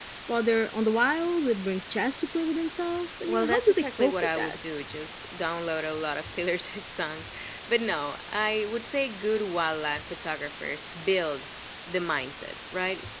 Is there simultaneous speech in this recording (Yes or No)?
Yes